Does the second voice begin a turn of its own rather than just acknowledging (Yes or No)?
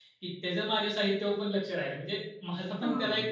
Yes